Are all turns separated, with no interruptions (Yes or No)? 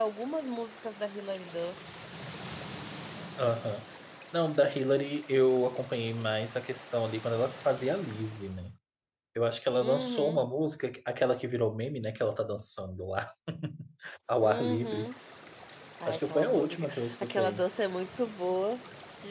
No